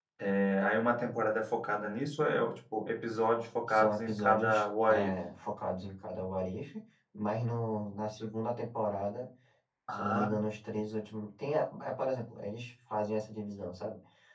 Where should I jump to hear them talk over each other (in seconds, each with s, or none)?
3.7 s